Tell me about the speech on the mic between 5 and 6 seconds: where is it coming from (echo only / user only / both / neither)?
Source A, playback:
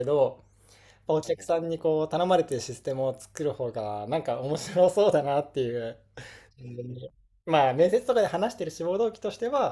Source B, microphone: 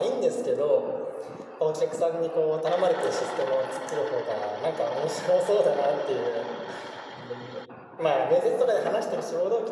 echo only